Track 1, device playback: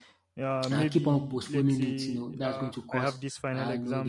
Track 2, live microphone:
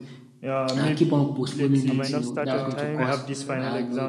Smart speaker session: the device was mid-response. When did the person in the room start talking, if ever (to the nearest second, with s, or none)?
2 s